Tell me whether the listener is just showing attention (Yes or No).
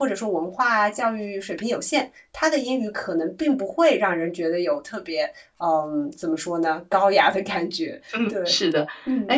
No